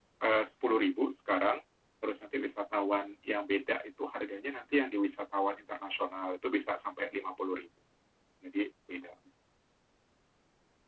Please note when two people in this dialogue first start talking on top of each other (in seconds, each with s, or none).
none